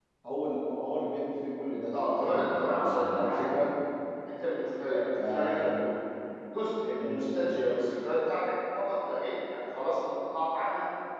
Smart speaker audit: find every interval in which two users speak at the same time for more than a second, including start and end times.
2.2-3.4

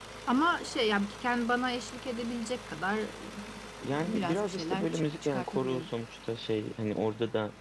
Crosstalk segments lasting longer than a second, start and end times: 3.8-5.9

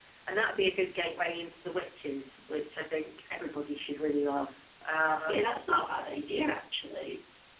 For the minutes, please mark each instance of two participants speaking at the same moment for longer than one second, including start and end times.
none

